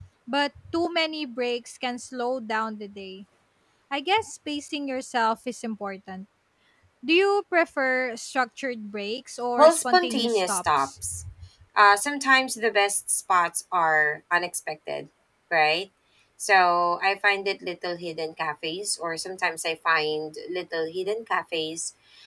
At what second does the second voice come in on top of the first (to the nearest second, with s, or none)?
10 s